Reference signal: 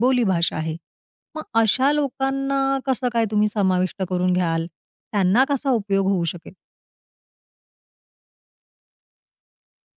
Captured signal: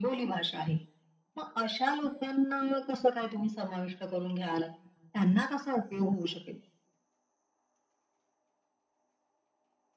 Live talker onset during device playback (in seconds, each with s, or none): none